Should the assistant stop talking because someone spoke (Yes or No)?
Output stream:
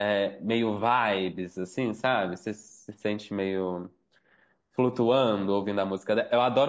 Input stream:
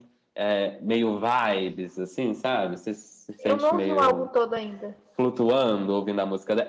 Yes